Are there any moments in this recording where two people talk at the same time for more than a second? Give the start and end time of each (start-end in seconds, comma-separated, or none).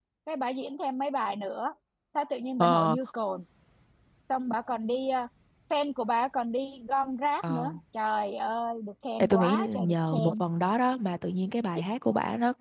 9.2-10.4